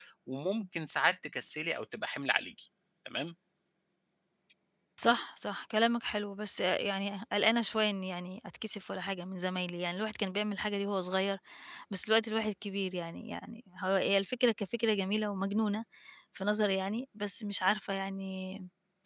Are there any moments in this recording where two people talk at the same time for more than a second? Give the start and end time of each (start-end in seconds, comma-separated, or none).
none